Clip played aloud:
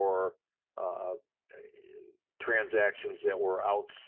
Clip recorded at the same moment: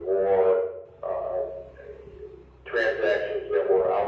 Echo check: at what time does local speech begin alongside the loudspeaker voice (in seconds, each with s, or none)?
none